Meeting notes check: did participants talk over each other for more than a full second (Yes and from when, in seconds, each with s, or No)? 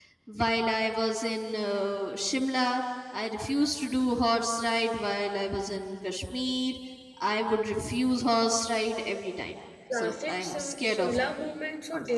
Yes, from 9.9 s